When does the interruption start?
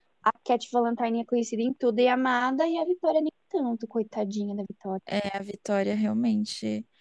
none

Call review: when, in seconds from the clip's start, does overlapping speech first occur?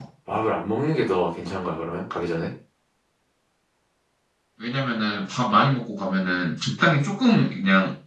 none

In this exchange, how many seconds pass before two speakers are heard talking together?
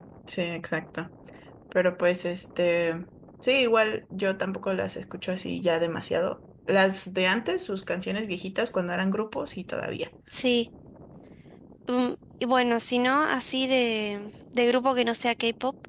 none

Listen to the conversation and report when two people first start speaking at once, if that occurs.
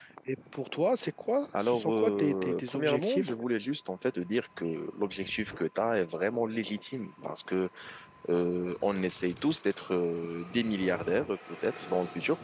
1.5 s

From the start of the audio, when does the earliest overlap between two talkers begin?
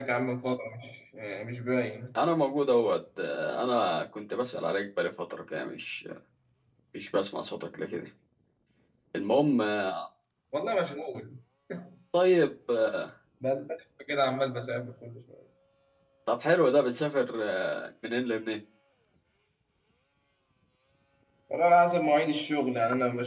none

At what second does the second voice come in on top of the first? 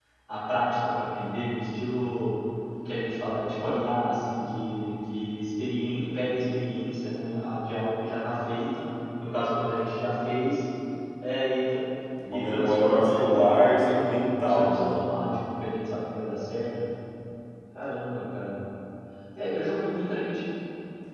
12.3 s

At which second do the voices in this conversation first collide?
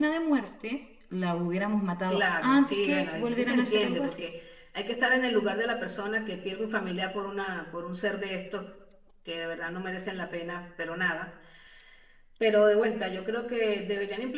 2.1 s

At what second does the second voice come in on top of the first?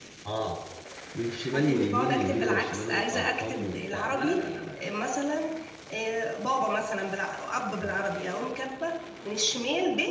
1.5 s

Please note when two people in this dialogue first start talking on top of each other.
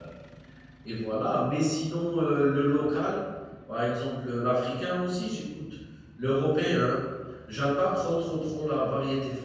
none

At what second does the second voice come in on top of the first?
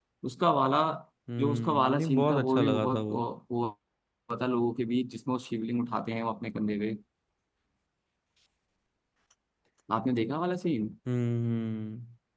1.4 s

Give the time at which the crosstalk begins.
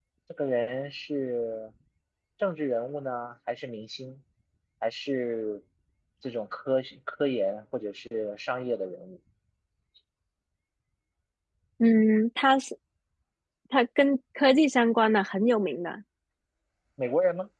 none

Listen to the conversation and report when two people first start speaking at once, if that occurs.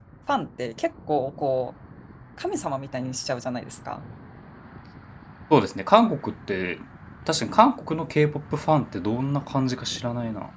none

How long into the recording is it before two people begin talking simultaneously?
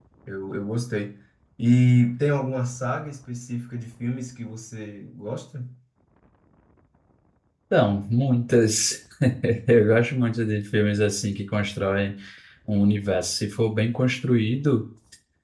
none

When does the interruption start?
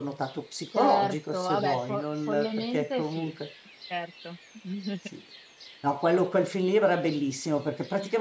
0.8 s

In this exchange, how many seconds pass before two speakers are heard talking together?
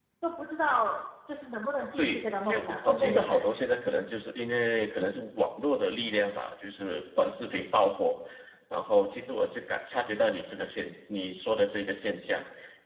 2.0 s

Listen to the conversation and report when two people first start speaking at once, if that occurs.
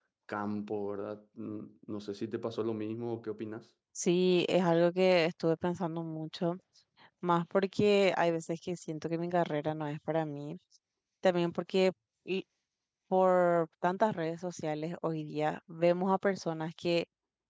none

